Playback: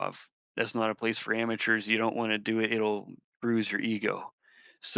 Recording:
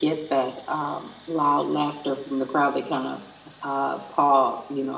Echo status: none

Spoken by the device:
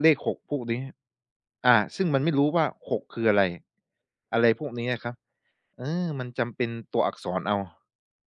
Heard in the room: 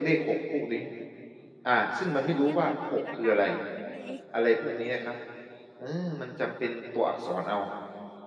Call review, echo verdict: present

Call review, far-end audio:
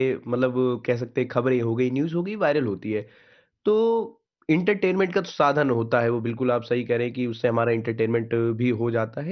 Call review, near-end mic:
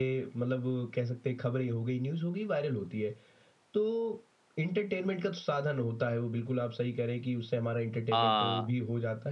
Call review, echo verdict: present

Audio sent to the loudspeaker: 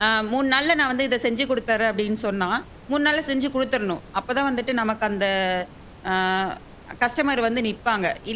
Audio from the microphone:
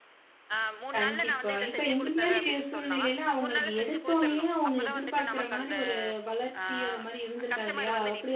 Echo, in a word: present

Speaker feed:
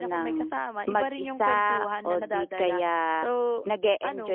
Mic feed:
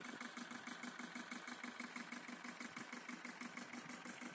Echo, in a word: none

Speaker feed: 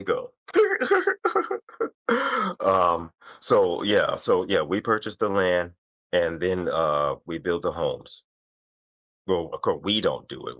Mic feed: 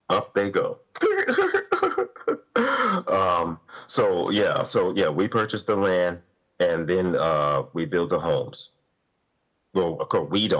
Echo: present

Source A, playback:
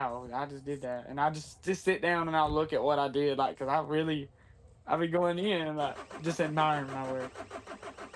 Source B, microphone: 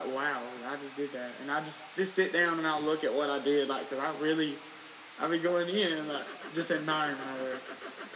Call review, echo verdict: present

